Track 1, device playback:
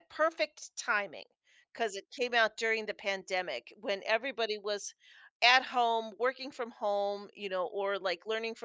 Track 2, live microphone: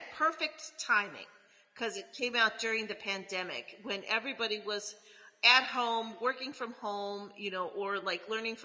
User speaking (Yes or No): No